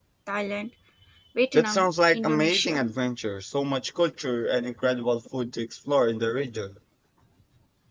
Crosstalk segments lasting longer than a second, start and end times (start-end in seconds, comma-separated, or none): 1.6-2.8